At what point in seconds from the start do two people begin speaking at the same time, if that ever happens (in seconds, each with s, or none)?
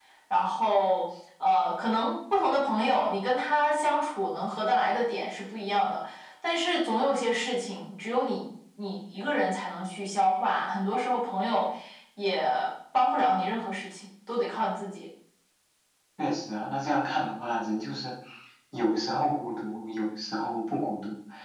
none